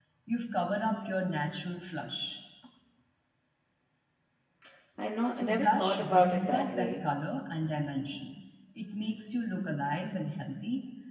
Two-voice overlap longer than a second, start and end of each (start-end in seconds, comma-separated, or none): 5.3-7.0